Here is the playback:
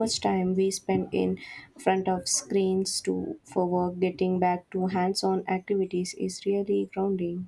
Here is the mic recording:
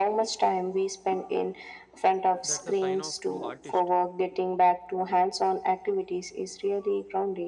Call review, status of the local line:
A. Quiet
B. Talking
B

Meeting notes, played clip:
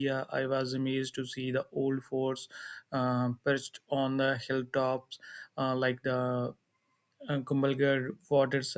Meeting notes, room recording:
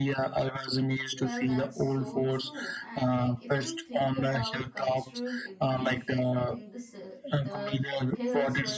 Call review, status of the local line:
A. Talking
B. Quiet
A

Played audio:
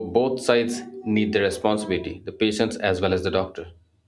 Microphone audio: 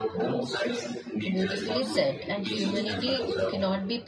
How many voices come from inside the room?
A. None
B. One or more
B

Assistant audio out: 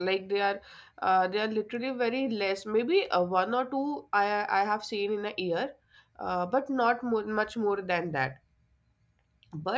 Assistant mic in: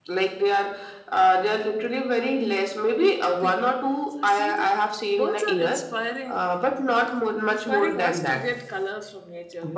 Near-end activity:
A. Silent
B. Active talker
B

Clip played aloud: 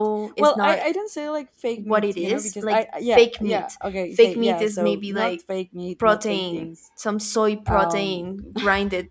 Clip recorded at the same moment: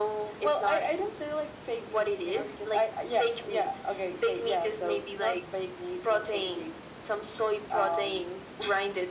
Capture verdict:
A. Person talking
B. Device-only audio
B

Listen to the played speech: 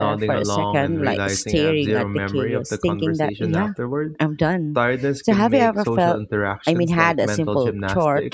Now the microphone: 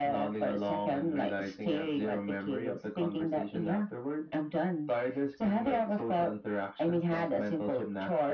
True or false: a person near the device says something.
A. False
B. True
A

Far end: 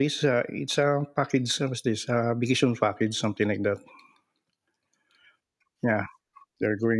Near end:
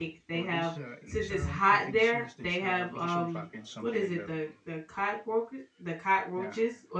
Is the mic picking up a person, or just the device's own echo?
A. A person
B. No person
A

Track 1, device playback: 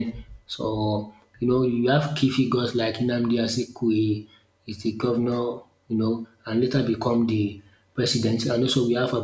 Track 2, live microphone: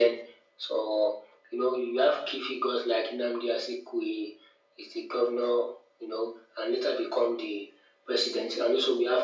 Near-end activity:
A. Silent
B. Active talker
A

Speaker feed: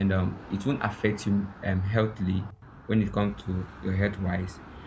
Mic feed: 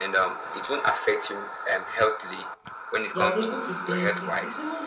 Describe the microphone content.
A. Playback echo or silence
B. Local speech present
B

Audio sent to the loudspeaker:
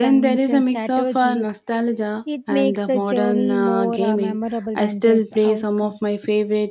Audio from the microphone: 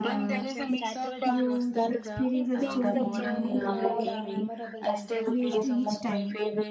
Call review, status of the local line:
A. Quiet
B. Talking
B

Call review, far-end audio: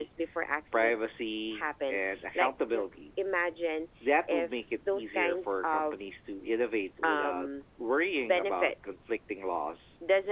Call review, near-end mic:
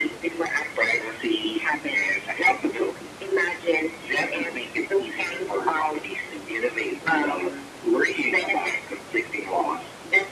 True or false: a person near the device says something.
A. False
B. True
A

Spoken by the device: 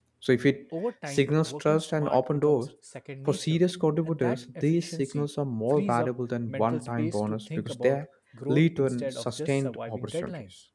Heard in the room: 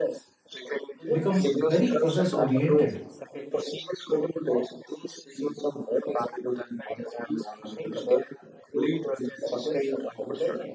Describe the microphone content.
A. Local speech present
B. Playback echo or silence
A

